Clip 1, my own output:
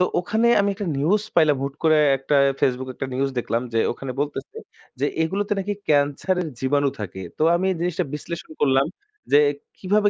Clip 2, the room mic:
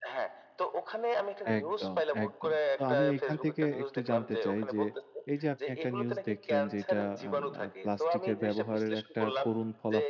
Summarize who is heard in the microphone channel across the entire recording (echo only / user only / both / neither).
both